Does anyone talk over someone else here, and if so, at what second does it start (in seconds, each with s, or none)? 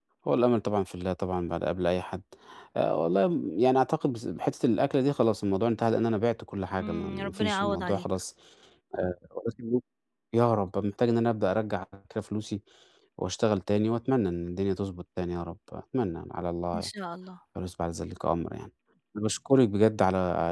6.8 s